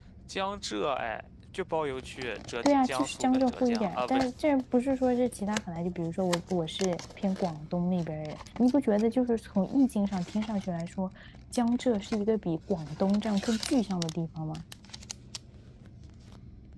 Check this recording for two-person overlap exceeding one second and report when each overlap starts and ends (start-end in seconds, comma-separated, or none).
2.6-4.2